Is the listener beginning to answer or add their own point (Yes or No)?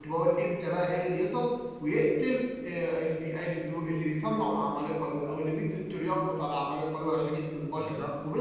No